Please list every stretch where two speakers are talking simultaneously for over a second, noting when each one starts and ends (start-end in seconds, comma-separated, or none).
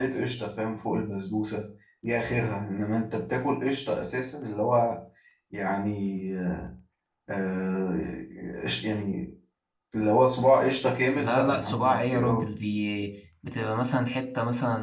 11.2-12.5